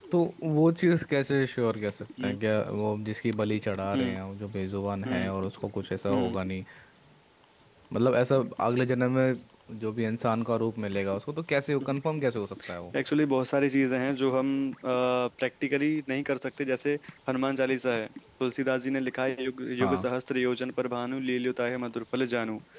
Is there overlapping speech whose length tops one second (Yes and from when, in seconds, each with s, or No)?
No